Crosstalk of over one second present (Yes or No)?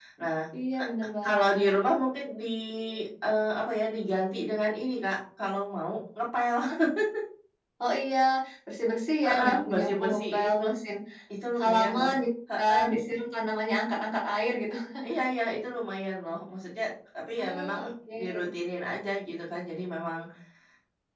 Yes